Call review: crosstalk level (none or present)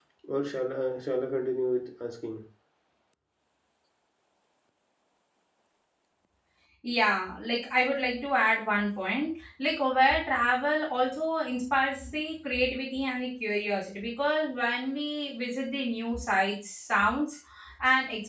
none